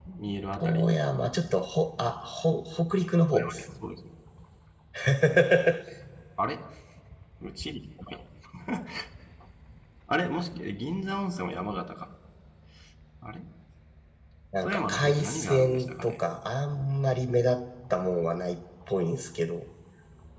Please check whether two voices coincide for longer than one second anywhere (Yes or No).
Yes